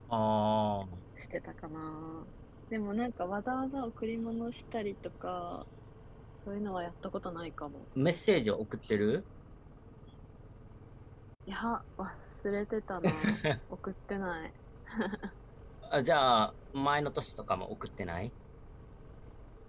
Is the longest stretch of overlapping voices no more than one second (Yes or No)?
Yes